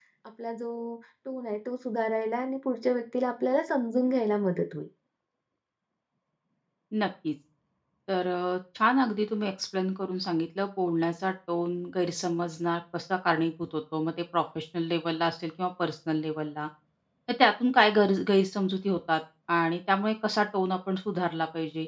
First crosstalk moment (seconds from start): none

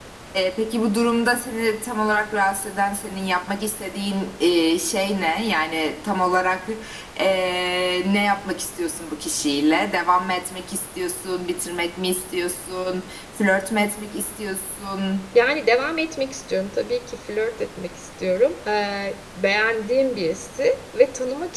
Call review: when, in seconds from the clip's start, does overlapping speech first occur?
none

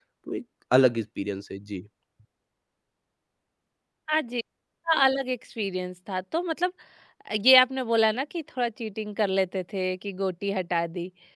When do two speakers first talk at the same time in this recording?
none

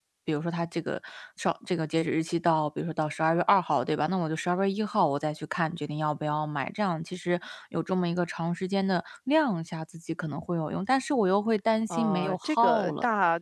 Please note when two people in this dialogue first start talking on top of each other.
11.9 s

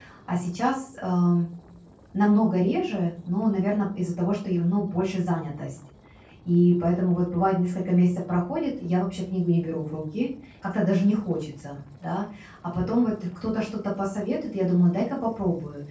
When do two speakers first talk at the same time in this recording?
none

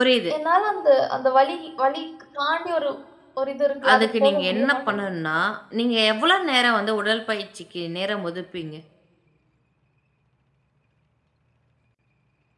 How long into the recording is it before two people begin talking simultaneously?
3.9 s

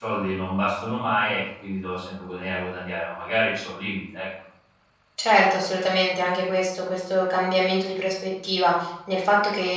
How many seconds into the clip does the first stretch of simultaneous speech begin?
none

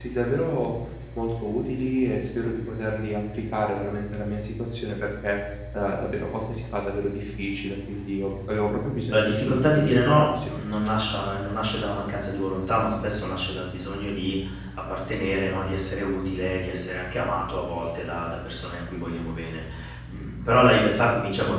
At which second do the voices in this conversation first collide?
9.1 s

